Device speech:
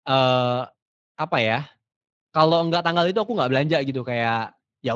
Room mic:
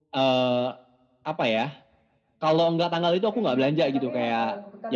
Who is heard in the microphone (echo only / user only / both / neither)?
both